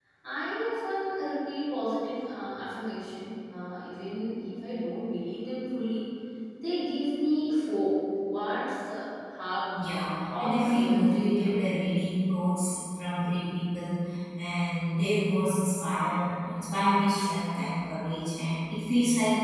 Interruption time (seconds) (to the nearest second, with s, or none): 10 s